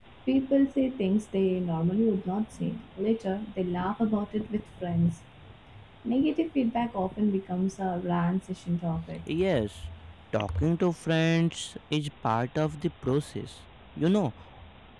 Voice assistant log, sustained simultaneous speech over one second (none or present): none